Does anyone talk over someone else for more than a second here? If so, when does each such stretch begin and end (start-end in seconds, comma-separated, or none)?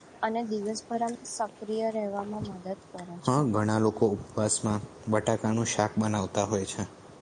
none